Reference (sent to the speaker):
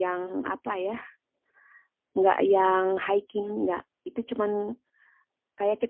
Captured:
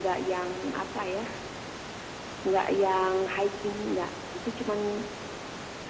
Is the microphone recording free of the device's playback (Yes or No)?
No